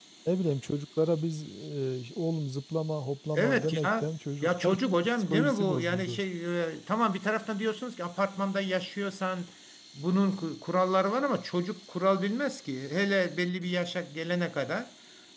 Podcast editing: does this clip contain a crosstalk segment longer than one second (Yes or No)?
Yes